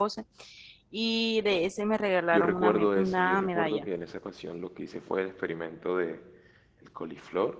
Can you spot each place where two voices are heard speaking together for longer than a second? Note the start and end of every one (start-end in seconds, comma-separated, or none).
2.3-3.9